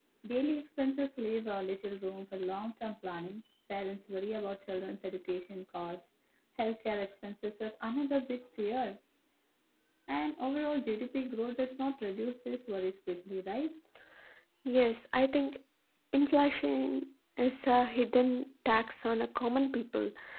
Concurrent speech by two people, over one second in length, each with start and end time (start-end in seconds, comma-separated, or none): none